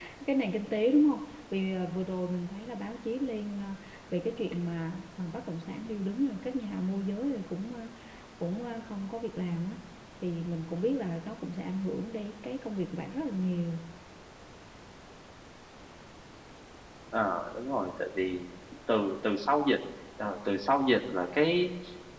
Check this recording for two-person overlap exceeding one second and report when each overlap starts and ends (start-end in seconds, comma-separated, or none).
none